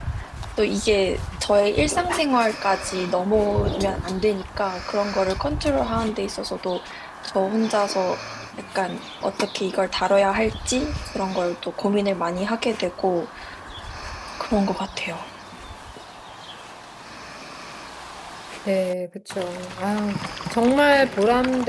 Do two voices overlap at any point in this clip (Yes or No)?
No